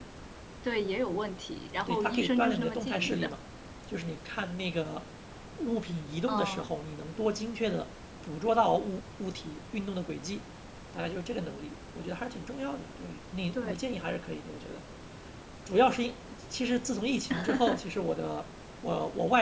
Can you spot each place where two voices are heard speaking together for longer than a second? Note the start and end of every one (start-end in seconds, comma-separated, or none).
1.9-3.3